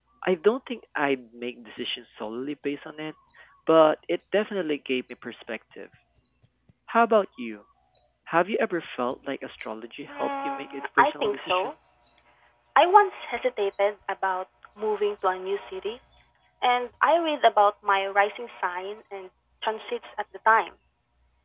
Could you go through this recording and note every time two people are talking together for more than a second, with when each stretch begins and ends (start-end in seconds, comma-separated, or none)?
10.1-11.7